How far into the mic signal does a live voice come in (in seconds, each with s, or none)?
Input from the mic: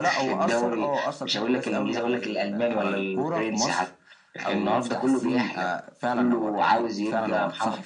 none